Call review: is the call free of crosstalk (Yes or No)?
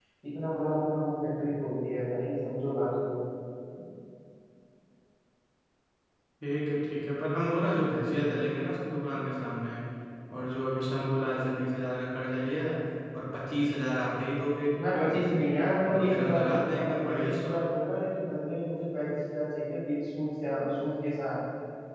No